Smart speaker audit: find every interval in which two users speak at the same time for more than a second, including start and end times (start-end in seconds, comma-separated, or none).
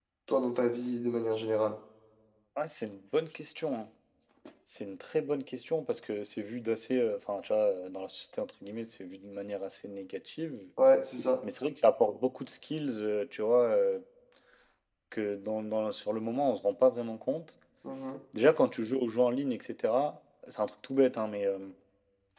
none